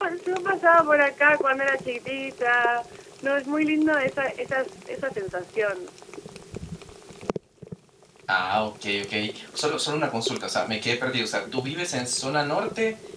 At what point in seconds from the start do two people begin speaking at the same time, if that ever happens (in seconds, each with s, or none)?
none